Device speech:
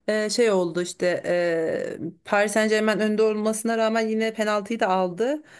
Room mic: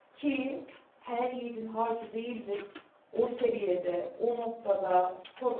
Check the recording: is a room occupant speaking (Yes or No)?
Yes